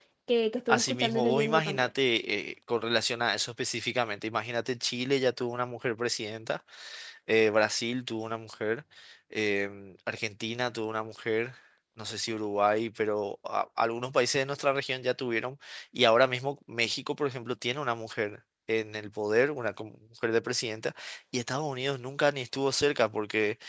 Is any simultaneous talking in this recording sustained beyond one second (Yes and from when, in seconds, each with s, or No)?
Yes, from 0.7 s